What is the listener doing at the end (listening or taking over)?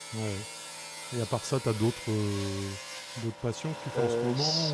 taking over